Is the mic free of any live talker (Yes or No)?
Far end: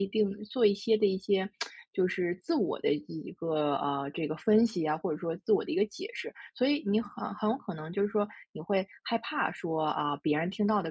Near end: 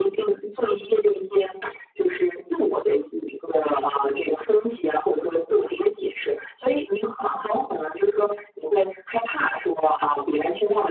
Yes